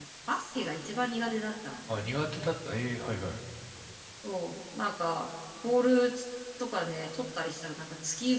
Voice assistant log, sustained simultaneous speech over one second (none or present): none